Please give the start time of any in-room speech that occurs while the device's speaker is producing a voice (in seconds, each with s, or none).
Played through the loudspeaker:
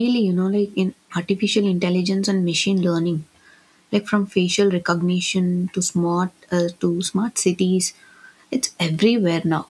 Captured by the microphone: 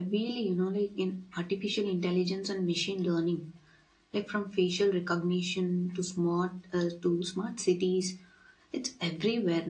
none